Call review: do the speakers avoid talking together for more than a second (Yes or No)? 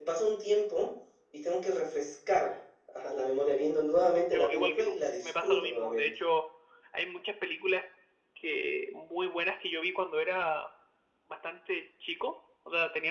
No